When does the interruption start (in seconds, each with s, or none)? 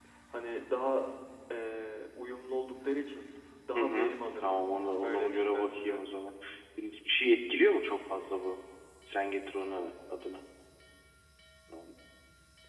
3.7 s